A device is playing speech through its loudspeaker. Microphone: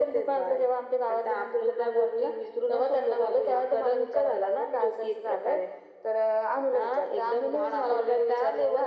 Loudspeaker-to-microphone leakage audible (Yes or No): Yes